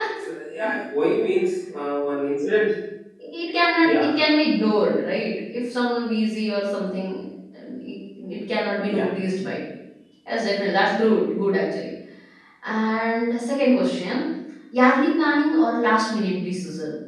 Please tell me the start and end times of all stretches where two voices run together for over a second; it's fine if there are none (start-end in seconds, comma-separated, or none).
none